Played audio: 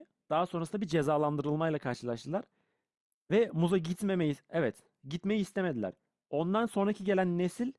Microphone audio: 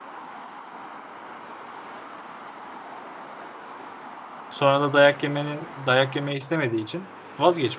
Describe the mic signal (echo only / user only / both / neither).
user only